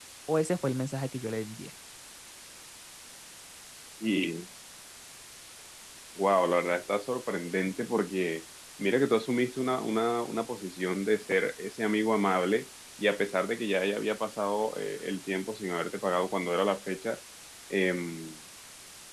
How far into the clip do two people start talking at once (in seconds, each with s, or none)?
none